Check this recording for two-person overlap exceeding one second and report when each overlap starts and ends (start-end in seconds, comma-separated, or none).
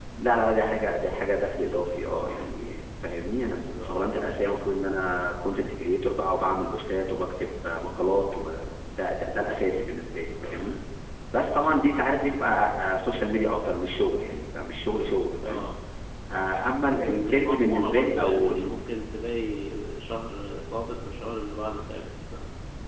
17.2-18.5